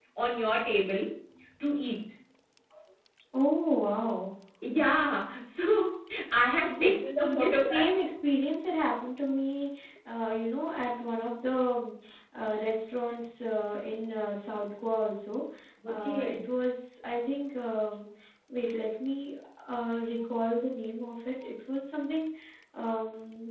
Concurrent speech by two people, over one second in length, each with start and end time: 6.7-7.9

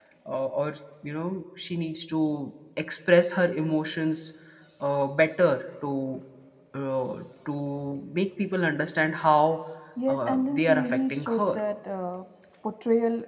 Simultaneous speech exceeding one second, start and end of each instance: 10.1-11.6

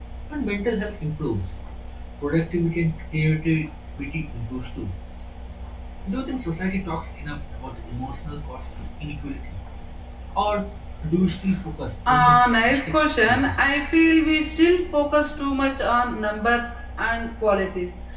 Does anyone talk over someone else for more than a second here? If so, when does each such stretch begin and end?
12.1-13.6

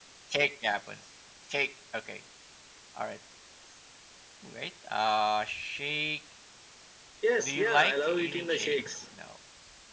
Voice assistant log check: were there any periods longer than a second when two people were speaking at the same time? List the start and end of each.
7.4-8.8

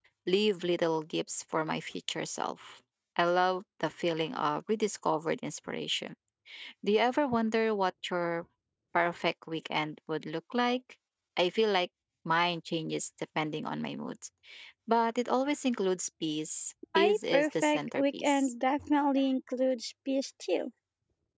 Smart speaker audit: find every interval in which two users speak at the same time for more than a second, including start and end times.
17.0-18.5

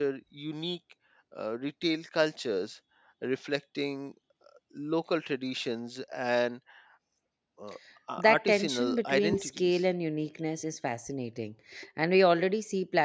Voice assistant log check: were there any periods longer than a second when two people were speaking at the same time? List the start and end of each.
8.3-9.8

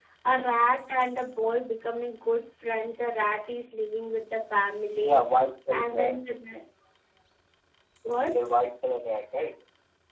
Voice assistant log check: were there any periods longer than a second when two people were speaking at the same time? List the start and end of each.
none

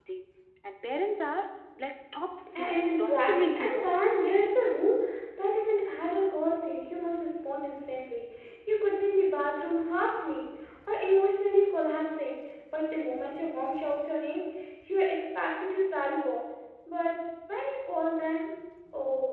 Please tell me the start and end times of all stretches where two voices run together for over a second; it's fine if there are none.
2.5-3.9

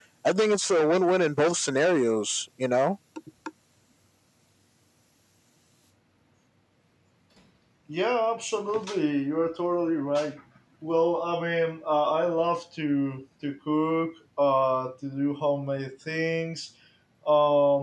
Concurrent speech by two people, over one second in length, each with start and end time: none

